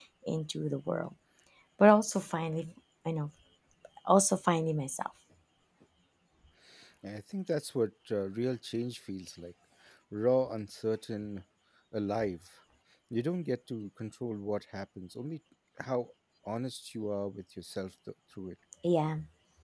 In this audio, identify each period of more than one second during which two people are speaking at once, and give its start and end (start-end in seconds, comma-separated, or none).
none